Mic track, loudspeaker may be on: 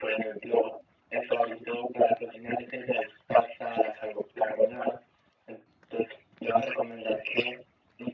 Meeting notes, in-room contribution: none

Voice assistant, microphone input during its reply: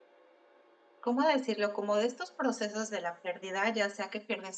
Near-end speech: present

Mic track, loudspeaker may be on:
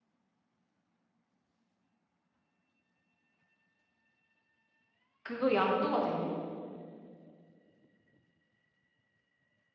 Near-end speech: present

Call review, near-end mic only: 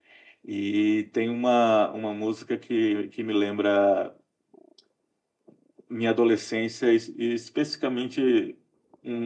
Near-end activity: present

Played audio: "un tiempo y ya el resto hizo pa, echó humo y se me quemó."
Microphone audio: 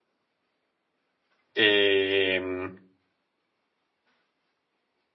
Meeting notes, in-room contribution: present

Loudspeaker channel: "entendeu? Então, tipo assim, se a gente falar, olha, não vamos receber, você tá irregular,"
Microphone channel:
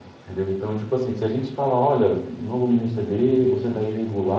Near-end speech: present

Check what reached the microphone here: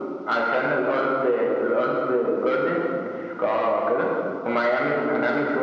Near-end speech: none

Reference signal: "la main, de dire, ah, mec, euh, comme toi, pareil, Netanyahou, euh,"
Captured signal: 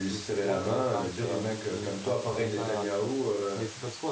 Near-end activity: present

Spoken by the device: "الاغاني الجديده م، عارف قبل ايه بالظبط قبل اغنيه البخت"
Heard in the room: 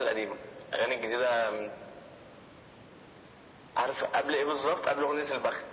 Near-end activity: none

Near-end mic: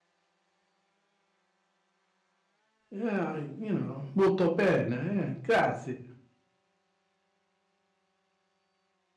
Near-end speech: present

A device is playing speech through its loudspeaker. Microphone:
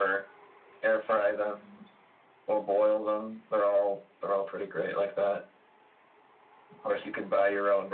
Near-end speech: none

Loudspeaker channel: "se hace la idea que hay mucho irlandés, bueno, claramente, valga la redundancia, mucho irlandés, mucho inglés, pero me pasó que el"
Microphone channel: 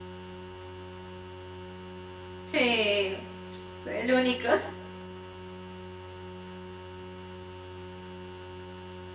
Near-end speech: present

